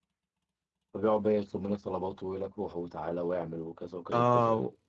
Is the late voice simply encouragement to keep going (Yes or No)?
No